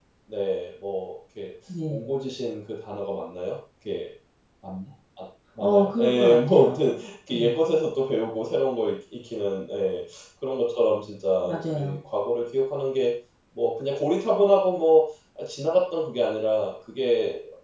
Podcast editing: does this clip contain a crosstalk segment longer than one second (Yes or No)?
Yes